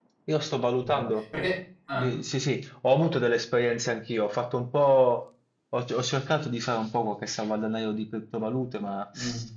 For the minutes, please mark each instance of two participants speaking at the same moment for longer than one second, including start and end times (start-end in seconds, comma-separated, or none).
none